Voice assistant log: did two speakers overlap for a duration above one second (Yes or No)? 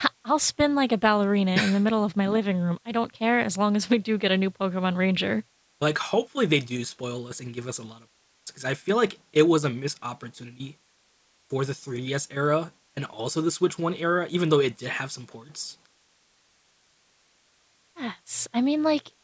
No